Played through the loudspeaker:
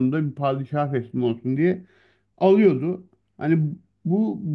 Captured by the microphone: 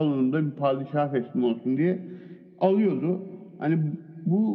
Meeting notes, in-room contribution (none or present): none